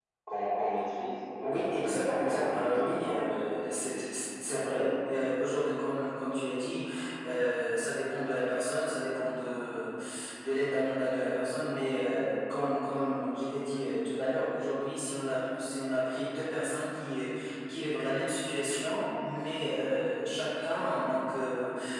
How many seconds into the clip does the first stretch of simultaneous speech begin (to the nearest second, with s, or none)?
1 s